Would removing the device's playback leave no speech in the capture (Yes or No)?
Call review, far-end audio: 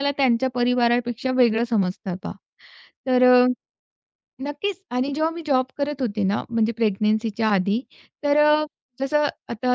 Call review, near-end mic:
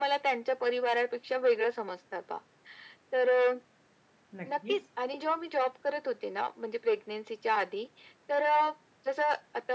No